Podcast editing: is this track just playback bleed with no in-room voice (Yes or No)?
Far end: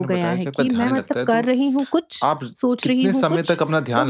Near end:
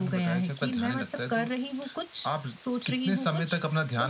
Yes